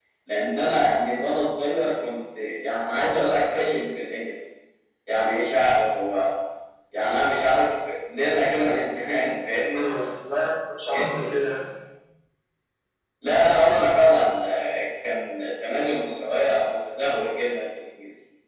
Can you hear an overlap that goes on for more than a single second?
No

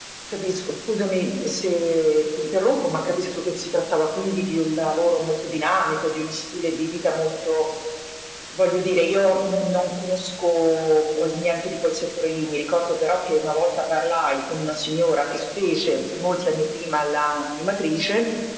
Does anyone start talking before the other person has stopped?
No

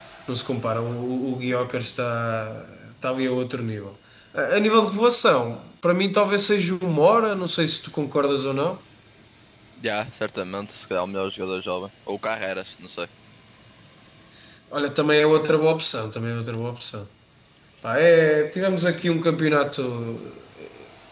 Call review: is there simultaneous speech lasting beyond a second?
No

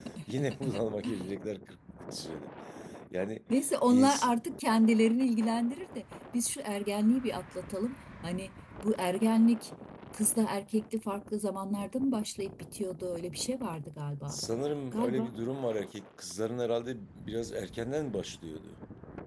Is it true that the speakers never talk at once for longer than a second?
Yes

